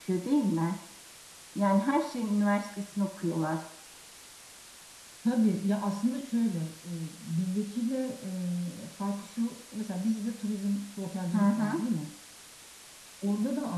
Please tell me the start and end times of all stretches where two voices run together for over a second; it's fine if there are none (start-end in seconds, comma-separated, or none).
none